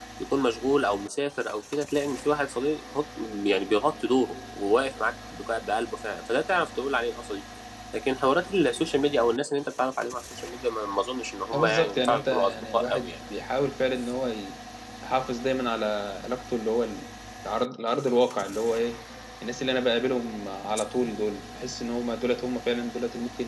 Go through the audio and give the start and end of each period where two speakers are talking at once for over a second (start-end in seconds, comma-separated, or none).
11.5-13.1